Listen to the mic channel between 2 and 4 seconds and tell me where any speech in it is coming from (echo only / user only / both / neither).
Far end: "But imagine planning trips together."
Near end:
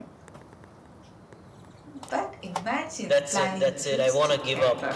both